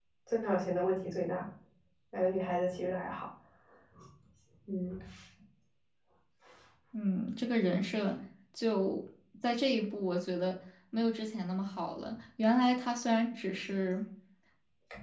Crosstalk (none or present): none